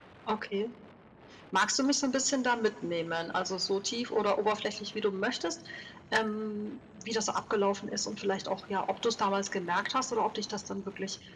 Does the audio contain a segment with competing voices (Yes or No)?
No